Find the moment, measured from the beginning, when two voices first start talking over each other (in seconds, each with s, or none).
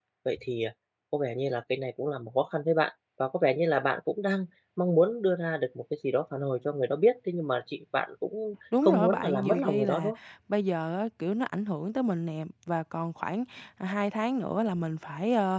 8.7 s